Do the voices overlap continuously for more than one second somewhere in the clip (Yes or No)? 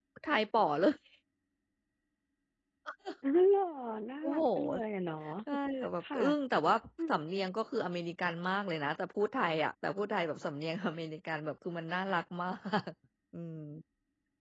No